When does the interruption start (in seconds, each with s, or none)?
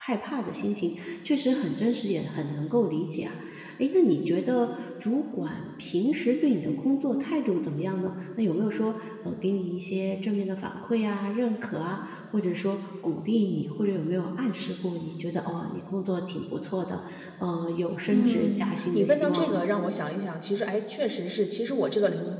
18.1 s